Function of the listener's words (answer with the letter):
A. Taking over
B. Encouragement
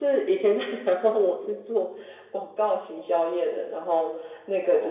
B